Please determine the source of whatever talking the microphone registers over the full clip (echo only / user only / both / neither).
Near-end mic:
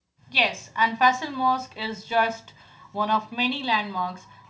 user only